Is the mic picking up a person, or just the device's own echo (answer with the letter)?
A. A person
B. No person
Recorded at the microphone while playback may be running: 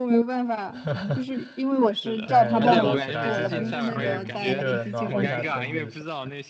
A